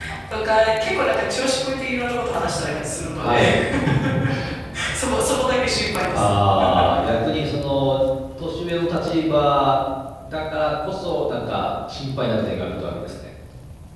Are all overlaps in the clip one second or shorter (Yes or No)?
Yes